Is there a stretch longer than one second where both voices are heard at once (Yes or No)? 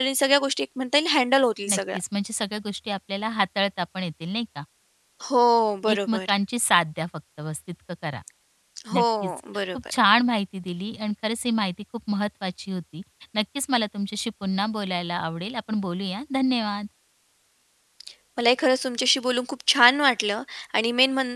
No